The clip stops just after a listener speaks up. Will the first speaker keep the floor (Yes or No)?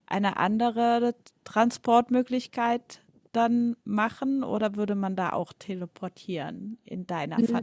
No